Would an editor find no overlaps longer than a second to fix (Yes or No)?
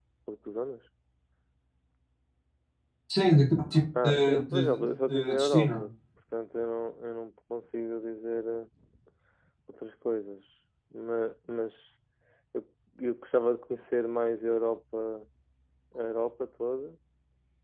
No